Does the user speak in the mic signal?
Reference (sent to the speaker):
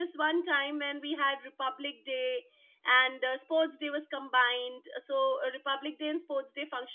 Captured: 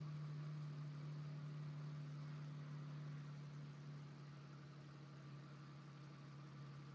No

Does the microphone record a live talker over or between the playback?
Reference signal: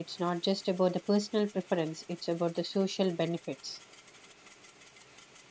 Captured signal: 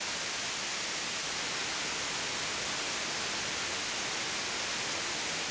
No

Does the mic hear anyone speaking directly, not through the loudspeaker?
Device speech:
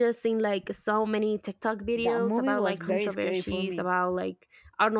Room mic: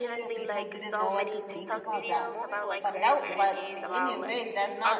Yes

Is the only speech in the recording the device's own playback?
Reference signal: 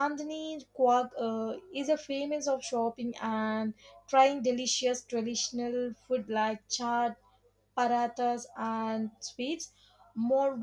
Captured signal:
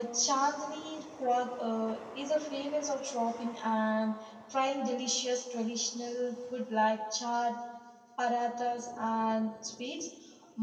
Yes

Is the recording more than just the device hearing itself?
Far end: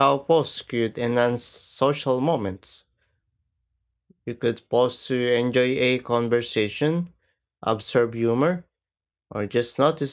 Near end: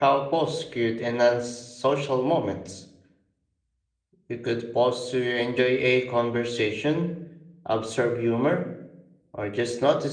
No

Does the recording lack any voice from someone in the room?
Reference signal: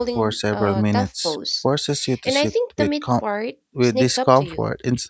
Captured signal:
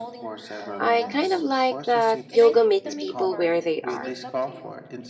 No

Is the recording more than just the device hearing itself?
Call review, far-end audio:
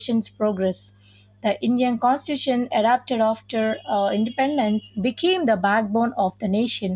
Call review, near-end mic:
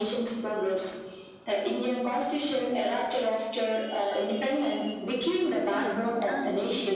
Yes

